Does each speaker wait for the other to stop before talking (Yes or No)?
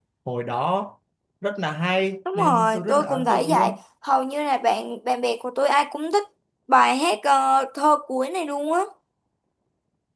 No